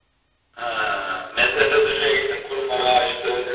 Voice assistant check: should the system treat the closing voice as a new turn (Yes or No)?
Yes